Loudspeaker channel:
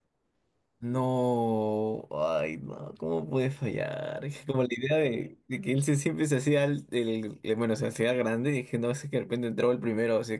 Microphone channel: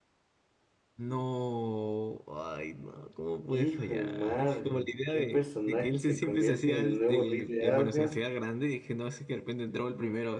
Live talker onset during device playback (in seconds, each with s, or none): 3.5 s